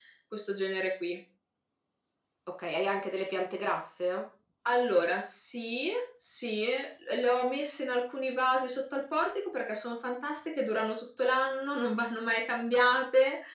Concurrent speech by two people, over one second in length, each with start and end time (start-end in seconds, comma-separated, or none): none